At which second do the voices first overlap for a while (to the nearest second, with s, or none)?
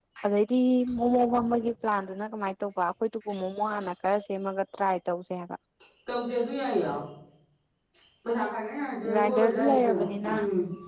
9 s